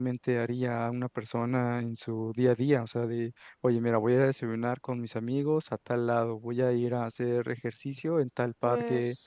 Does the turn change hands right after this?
No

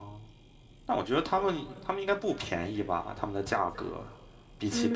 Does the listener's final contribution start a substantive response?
Yes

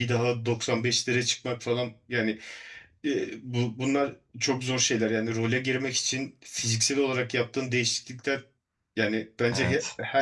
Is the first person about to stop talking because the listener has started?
No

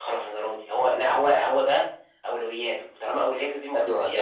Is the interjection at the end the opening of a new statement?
Yes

